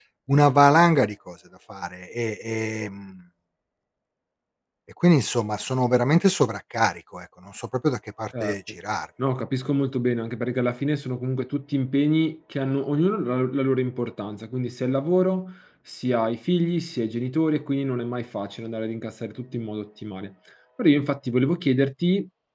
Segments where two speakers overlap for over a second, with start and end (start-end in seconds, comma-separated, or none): none